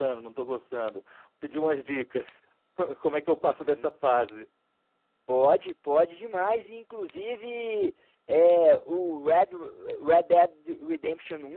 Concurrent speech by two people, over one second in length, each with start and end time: none

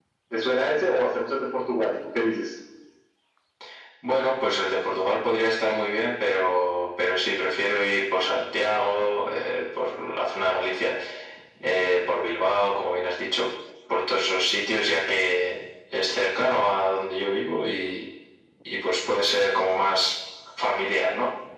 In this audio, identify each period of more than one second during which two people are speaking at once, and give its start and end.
none

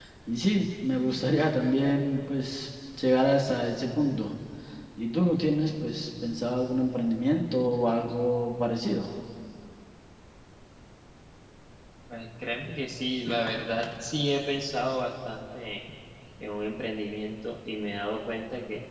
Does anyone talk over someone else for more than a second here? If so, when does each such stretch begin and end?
none

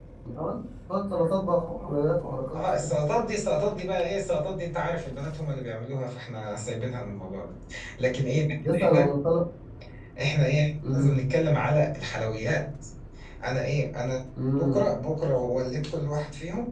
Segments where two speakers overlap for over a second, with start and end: none

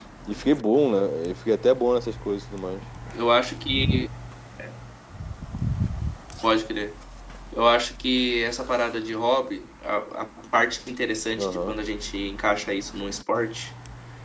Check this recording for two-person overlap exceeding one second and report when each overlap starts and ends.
none

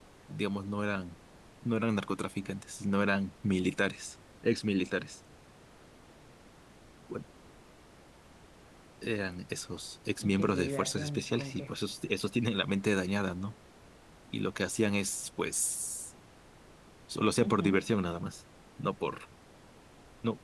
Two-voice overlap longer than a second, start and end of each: 10.2-11.8

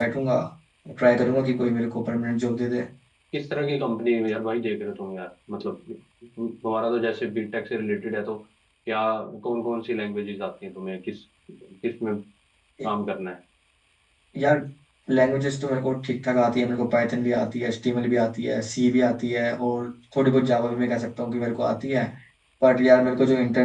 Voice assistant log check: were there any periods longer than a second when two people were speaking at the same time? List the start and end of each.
none

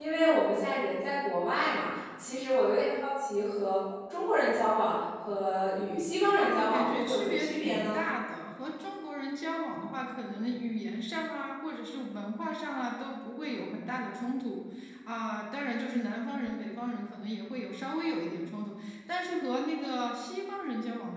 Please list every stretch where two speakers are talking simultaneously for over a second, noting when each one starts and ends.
6.4-8.0

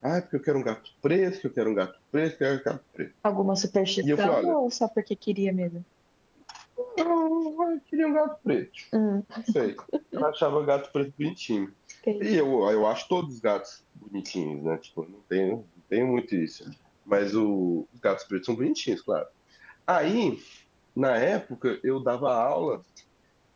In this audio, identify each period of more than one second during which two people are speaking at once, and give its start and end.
none

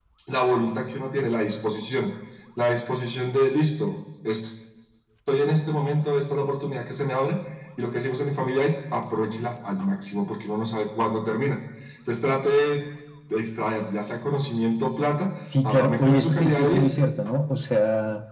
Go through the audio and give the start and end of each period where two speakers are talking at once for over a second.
15.6-16.9

